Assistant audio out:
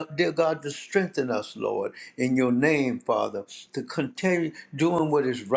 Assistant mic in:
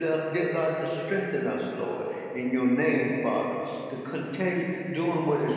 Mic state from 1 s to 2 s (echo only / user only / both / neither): echo only